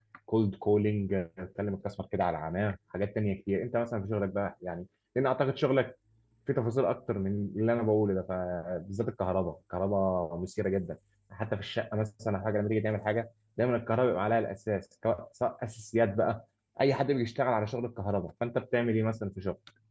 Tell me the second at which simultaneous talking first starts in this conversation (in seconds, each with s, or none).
none